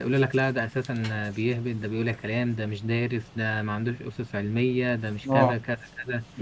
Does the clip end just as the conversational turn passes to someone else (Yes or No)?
No